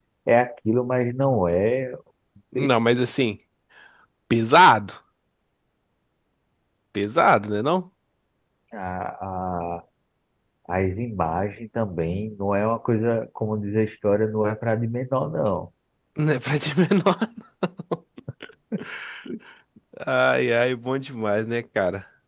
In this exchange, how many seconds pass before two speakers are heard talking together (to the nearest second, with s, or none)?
none